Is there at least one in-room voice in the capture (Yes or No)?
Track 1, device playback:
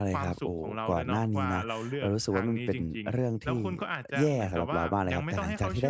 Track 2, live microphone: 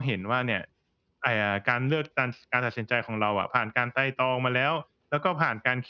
Yes